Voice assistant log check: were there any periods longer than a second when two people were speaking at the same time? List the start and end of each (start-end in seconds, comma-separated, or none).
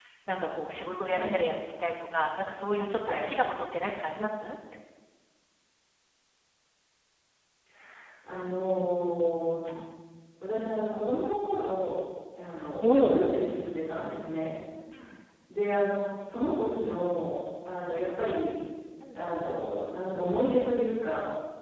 none